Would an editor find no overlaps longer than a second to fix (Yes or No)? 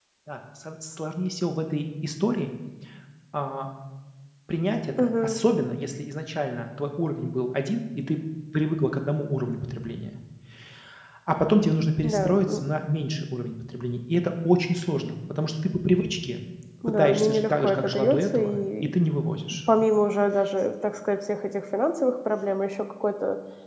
No